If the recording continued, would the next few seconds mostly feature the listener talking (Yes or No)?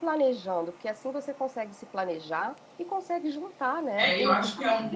Yes